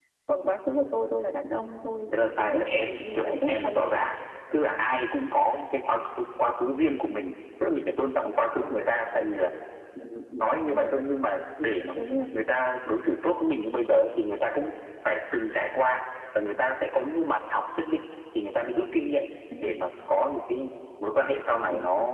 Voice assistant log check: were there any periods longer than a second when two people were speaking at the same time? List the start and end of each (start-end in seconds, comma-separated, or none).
2.1-3.9